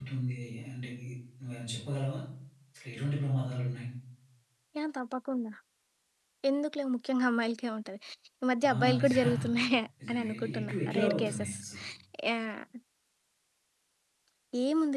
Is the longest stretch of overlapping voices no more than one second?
No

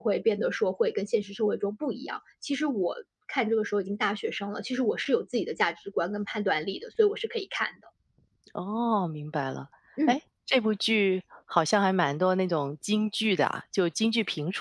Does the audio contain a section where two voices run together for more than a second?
No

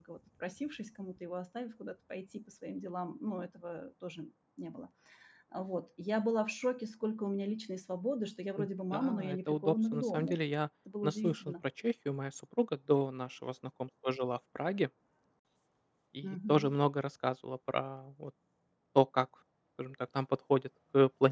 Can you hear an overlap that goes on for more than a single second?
Yes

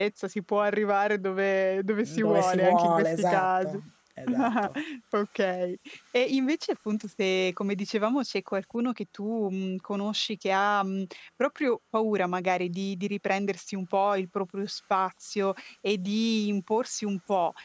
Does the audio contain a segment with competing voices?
Yes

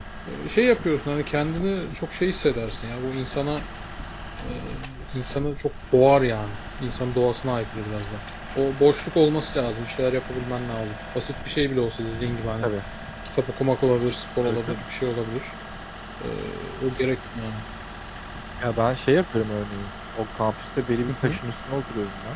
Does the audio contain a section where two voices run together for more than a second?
No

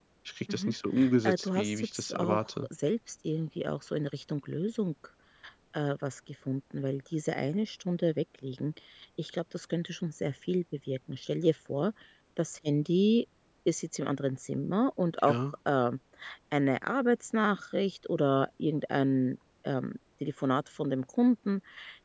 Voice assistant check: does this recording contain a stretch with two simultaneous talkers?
Yes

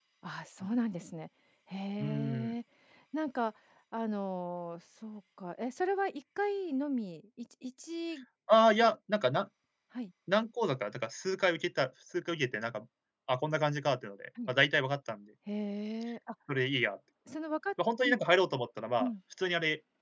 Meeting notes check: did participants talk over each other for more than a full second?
No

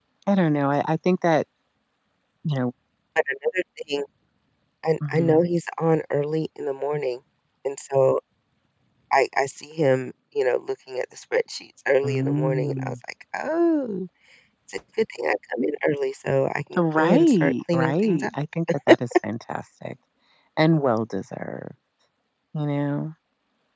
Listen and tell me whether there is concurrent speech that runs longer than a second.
Yes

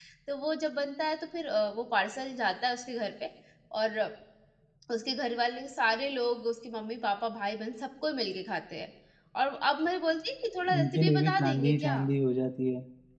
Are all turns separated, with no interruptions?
No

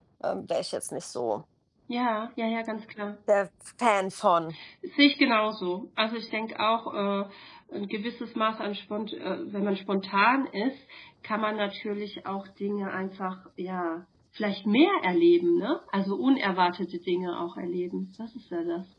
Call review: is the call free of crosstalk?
Yes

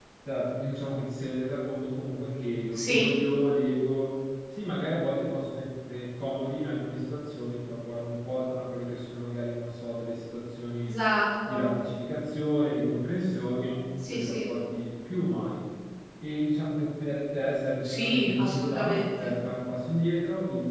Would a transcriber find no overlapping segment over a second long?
No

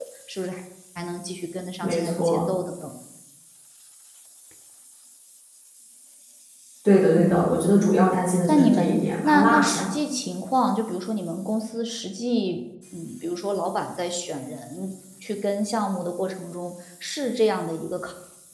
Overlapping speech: Yes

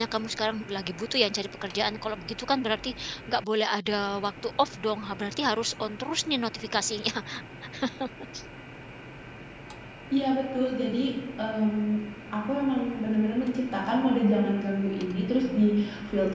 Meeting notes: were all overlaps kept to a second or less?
Yes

